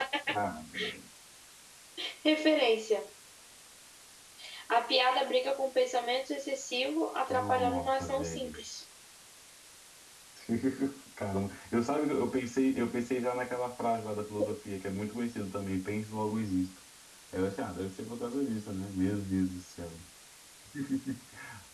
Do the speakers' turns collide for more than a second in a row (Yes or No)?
Yes